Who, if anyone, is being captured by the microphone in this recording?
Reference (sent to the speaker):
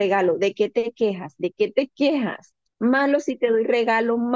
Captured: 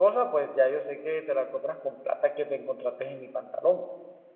user only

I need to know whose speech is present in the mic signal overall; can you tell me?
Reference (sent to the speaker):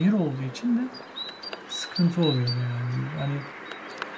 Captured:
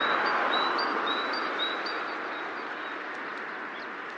neither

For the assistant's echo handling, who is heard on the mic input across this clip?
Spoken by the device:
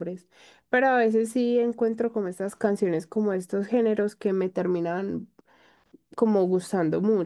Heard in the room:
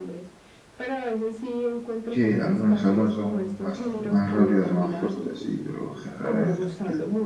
both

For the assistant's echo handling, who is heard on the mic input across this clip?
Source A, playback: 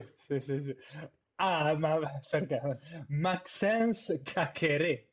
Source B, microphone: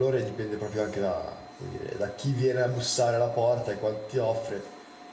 user only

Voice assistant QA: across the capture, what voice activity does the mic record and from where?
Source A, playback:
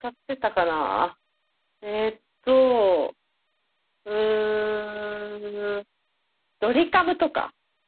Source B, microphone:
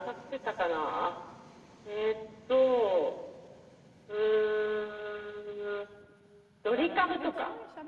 both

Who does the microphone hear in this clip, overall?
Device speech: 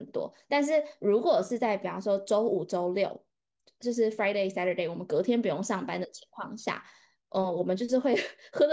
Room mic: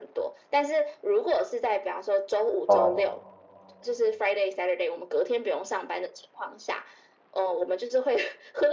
both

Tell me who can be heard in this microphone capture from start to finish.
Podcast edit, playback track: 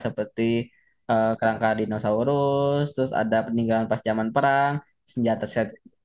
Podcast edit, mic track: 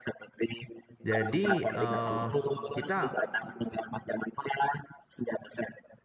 both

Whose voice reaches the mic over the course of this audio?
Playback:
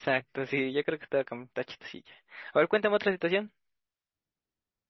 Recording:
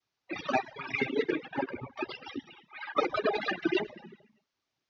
echo only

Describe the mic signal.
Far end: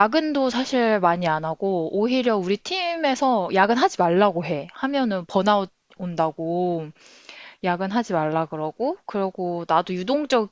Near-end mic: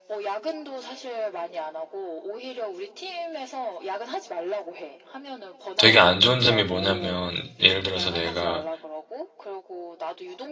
both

